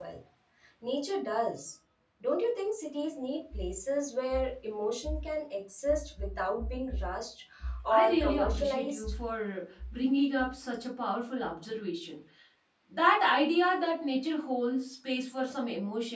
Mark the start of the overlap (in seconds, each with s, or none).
7.9 s